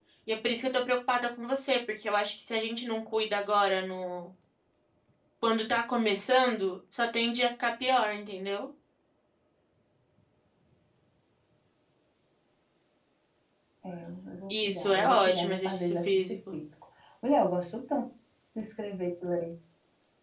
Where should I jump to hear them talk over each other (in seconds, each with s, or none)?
14.6 s